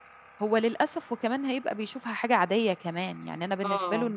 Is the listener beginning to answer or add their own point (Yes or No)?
No